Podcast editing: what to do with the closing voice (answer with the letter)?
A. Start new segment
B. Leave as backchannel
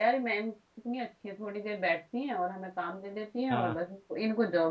B